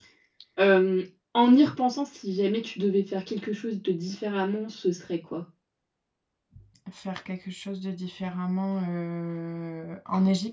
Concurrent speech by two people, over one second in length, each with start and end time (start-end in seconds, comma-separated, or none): none